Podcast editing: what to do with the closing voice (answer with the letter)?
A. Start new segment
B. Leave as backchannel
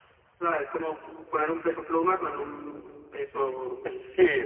A